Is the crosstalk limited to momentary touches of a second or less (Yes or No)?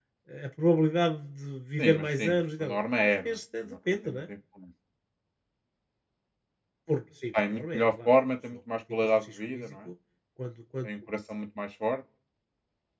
No